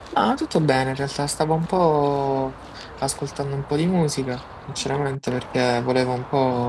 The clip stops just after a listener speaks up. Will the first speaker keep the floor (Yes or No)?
Yes